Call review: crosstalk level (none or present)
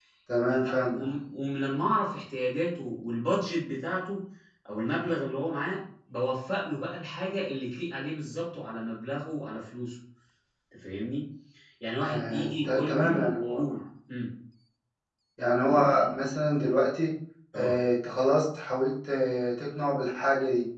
present